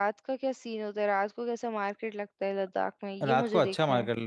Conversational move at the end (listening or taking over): taking over